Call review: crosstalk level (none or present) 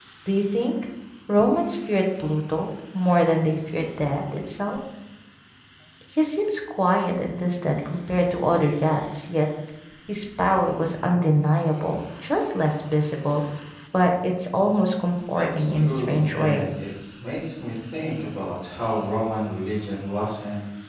present